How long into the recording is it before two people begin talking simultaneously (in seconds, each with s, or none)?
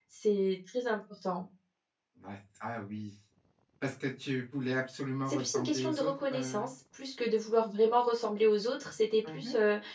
5.3 s